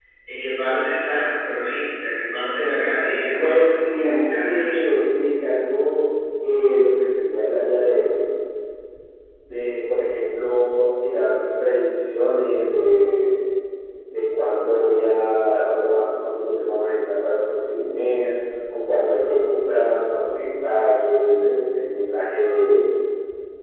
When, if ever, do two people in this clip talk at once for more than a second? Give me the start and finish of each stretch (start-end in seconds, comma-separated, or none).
3.4-4.9